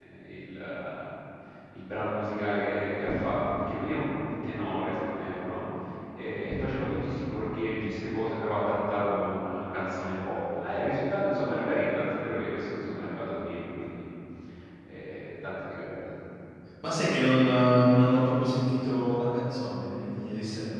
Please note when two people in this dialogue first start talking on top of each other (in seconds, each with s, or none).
none